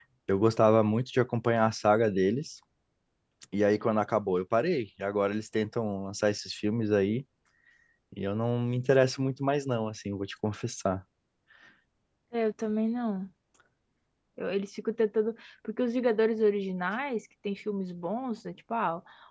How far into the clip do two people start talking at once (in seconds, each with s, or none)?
none